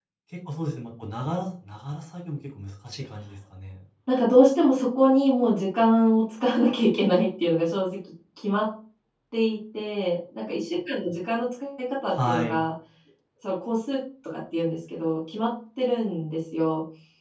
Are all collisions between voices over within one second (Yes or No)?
Yes